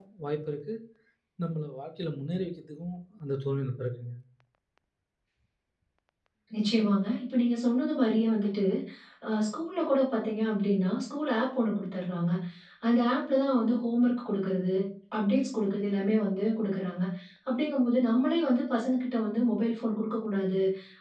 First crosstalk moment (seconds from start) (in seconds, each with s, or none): none